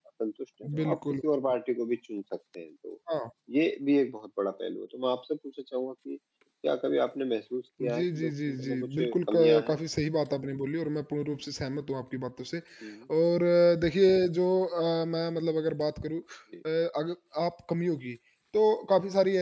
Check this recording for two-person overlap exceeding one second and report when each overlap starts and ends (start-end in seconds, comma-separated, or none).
7.8-9.8